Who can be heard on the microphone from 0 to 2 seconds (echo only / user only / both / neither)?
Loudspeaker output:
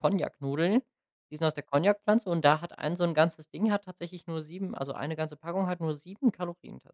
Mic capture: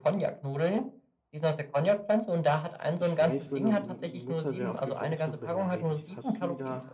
echo only